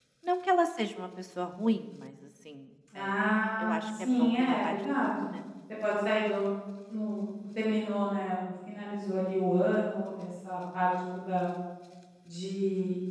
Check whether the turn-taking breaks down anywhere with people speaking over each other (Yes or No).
Yes